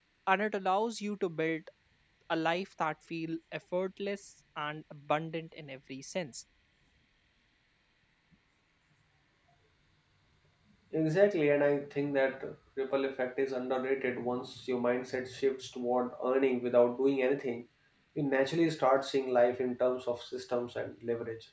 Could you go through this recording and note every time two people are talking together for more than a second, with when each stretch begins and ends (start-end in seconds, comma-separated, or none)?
none